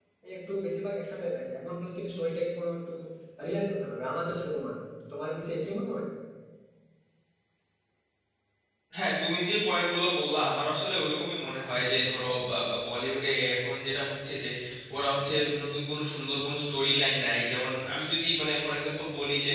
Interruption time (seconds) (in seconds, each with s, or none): none